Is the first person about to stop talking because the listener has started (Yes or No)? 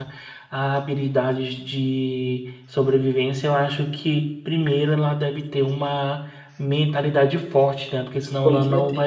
No